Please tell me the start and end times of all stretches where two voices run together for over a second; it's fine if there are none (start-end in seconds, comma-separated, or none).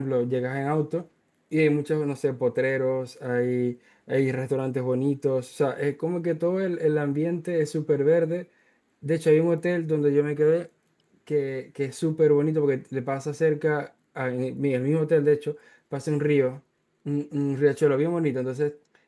none